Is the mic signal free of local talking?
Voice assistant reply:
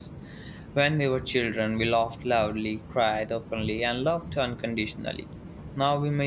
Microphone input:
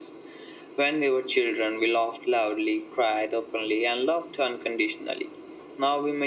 Yes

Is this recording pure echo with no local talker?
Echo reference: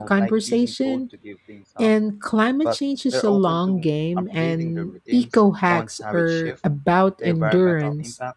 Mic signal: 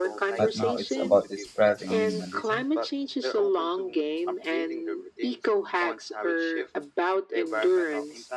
No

